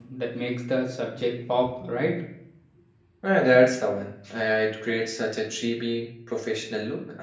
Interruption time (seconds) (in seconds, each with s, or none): none